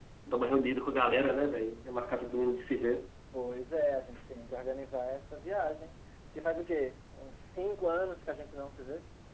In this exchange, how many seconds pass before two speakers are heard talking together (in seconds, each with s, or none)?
none